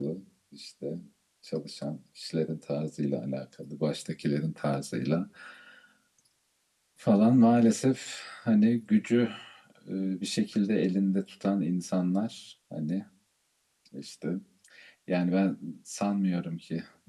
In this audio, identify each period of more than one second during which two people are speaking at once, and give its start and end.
none

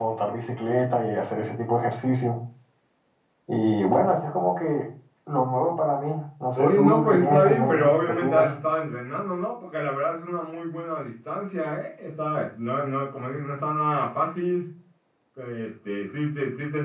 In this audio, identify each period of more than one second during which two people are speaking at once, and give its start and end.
6.6-8.5

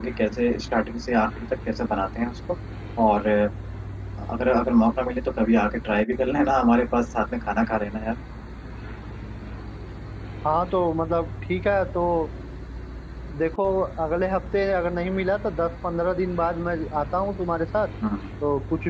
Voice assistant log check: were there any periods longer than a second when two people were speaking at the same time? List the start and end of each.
none

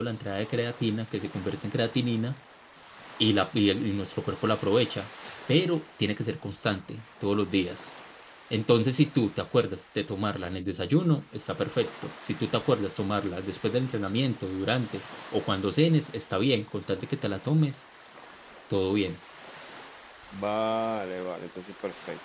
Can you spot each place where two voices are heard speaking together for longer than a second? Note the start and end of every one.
none

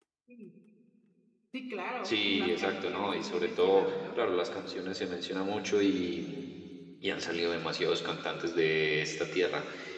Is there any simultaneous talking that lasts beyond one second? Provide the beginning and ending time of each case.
2.0-4.2

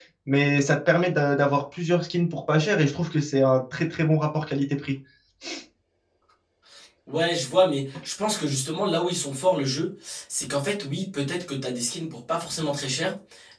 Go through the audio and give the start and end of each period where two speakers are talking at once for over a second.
none

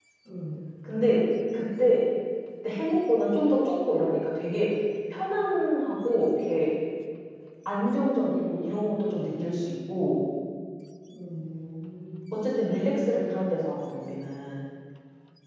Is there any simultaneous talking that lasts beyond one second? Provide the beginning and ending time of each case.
none

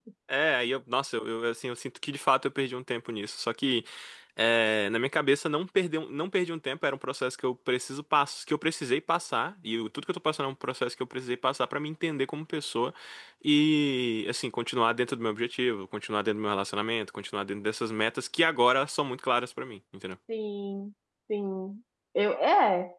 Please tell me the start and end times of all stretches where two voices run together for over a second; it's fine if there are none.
none

